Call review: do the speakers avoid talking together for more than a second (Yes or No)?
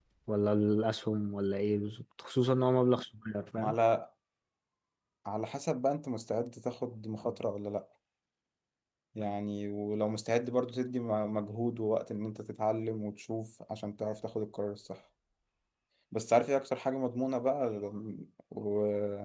Yes